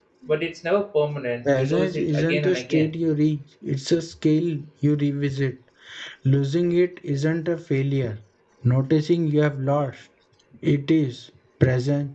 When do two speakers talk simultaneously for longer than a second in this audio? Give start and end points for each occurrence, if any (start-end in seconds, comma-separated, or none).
1.6-2.9